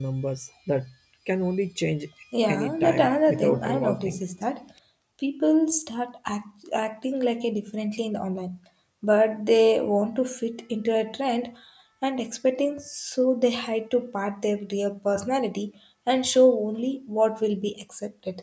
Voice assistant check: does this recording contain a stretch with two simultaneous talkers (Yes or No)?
Yes